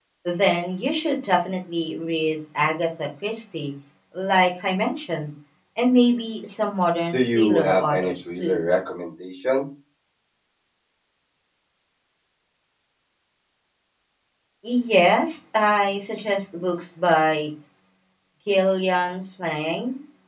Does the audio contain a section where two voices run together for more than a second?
Yes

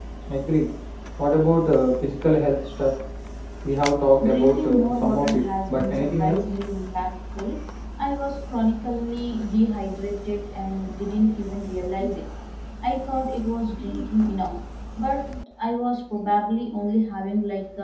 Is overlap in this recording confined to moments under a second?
No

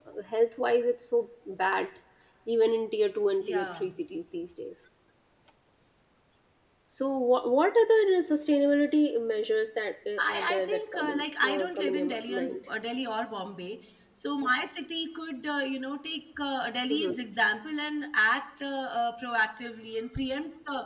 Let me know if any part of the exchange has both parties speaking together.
Yes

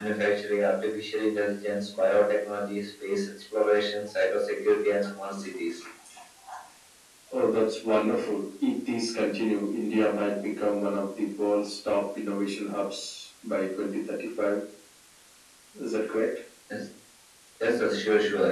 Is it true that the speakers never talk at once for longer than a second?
Yes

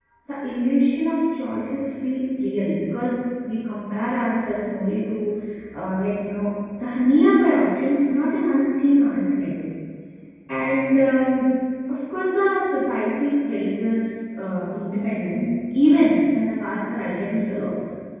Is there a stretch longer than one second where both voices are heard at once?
No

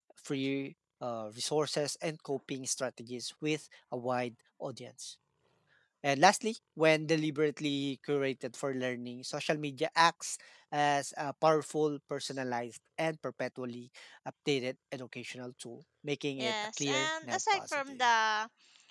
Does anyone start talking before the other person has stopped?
Yes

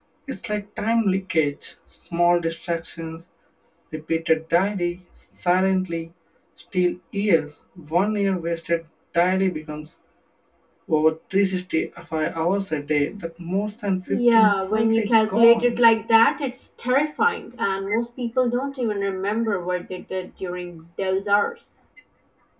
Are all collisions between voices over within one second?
No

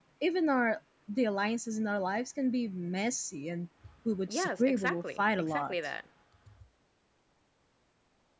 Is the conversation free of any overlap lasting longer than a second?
No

